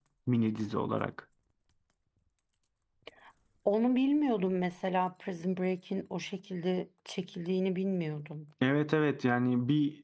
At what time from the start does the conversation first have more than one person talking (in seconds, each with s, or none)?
none